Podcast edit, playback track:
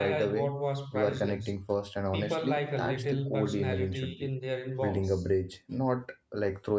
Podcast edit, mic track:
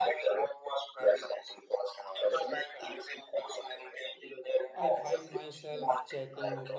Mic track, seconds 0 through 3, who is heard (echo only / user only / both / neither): echo only